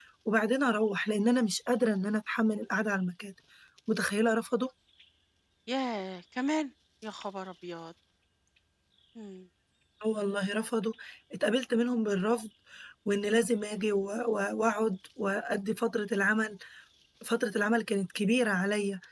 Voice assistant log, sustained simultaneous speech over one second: none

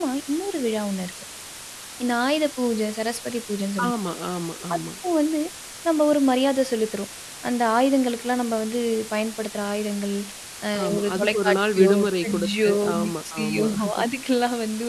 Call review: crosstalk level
present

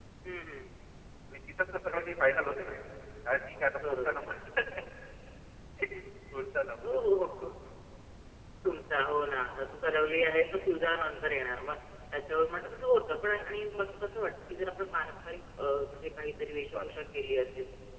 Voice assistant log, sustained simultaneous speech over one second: none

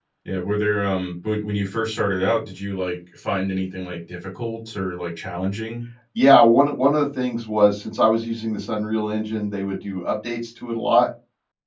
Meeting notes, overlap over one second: none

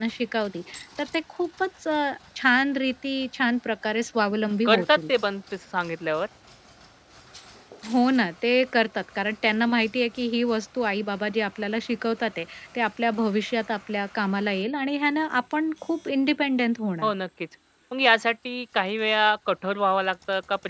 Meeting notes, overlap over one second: none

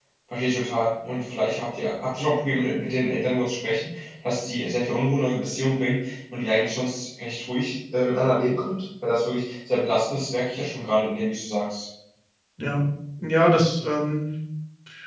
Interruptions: none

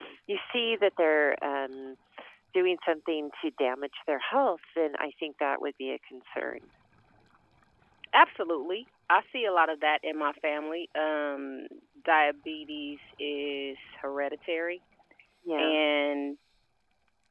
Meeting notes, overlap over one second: none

